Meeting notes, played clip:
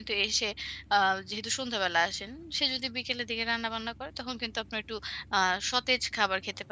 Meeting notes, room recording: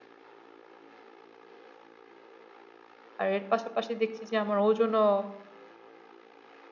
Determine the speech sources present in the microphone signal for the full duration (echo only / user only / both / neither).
user only